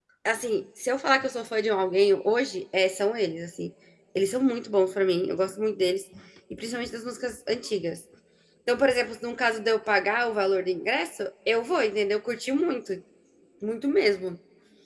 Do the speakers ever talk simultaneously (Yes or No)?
No